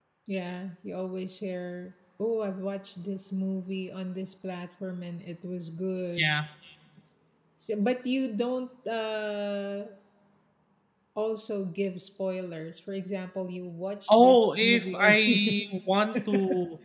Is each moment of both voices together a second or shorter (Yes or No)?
No